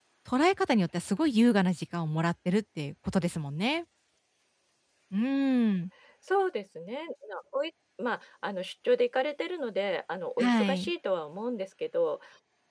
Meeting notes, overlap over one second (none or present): none